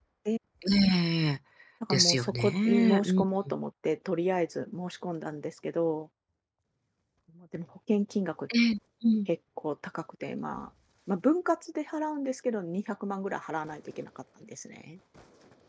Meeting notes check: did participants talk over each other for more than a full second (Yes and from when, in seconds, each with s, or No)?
Yes, from 1.9 s